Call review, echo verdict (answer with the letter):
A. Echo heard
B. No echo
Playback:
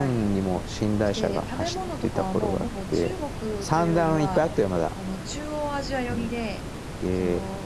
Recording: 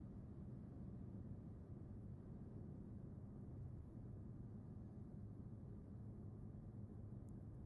B